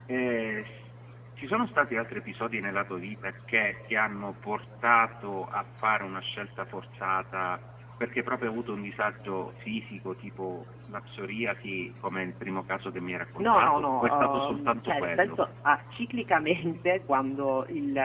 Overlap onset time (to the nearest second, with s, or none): 13 s